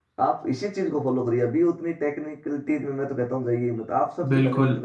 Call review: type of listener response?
taking over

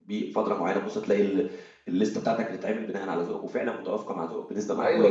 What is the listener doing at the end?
taking over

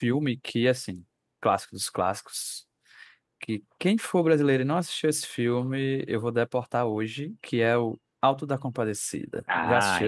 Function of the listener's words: taking over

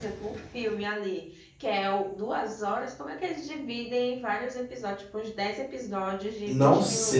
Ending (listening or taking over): taking over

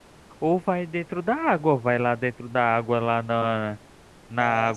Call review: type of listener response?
listening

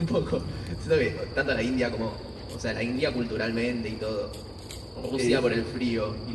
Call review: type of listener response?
listening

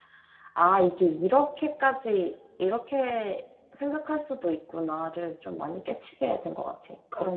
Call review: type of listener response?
taking over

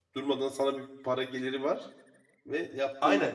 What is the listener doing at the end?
taking over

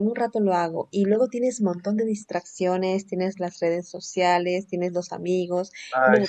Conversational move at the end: listening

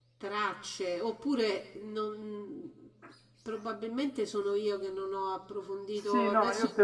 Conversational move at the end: taking over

